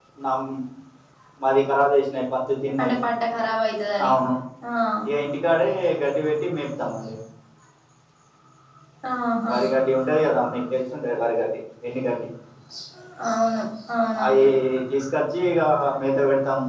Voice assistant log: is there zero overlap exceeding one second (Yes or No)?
Yes